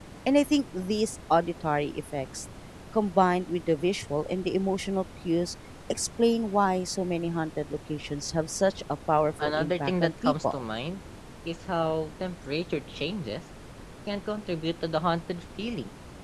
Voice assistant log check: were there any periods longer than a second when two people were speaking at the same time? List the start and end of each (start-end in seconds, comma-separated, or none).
9.4-10.6